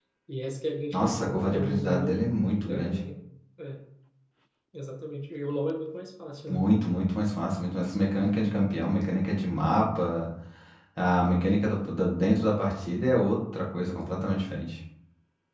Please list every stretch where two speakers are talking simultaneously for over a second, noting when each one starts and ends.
0.9-2.2

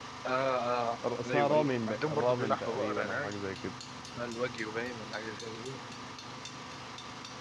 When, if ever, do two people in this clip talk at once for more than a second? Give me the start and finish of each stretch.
1.2-3.3

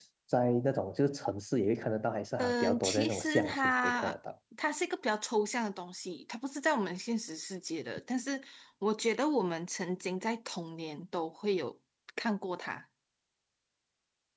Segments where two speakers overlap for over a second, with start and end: 2.4-4.2

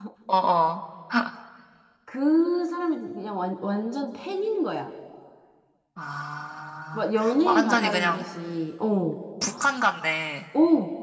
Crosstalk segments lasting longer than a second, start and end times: 6.9-8.3

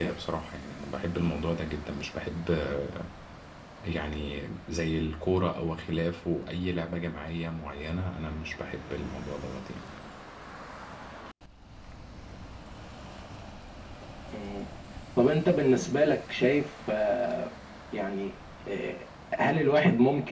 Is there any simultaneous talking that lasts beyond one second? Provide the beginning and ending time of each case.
none

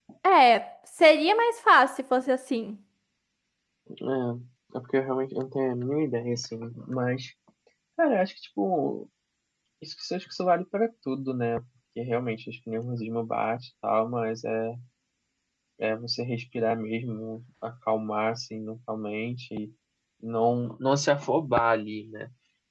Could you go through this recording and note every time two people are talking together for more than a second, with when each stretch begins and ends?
none

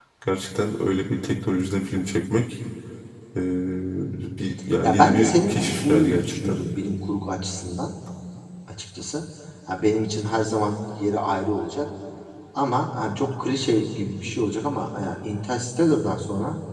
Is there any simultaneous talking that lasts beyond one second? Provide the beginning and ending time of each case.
4.8-6.6

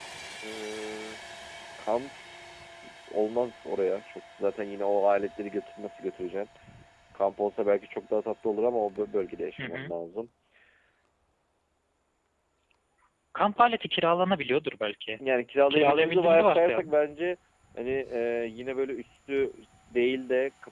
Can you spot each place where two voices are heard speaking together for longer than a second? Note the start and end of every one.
15.7-16.9

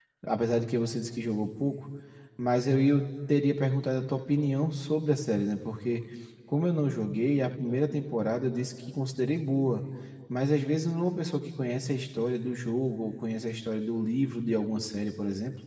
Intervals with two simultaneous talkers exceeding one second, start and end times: none

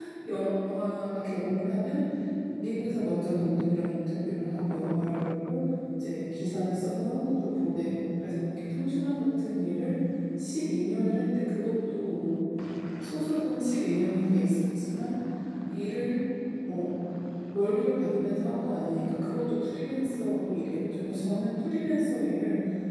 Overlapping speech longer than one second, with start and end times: none

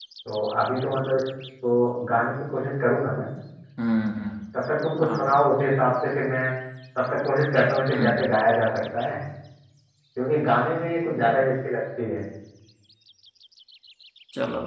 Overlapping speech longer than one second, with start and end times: none

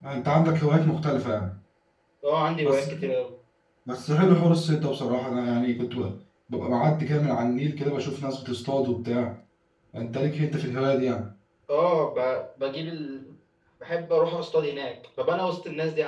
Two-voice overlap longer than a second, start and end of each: none

